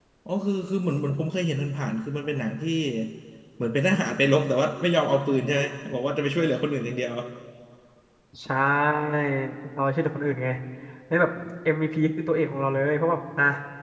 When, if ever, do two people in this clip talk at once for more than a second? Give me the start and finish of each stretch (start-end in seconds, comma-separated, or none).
none